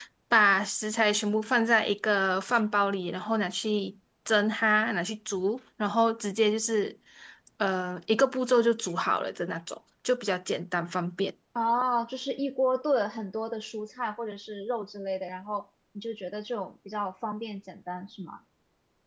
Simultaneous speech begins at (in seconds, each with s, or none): none